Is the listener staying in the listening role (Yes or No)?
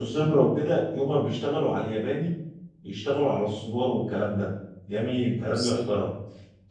Yes